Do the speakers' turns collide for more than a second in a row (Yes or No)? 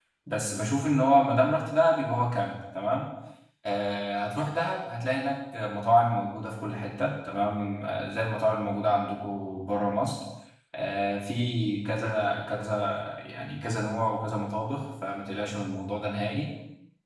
No